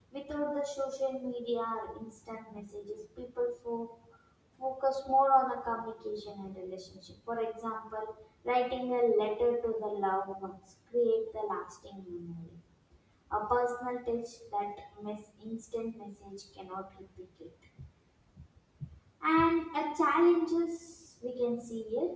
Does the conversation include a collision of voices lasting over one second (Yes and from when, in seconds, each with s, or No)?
No